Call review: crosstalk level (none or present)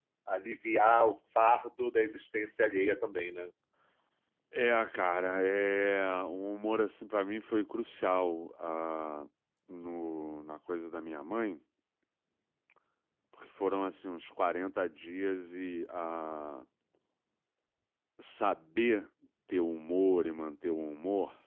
none